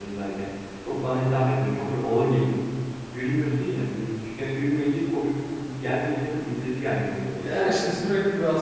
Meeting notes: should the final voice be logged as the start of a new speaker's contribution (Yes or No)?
Yes